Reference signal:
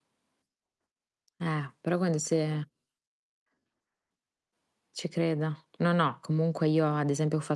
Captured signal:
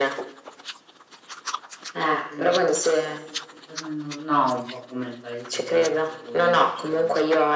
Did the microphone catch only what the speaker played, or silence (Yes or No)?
No